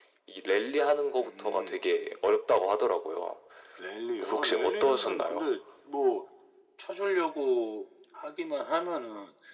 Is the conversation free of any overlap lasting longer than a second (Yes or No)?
No